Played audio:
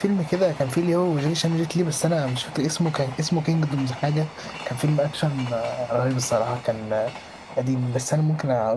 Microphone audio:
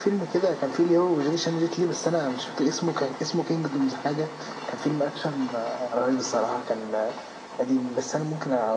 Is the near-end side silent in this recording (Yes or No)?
Yes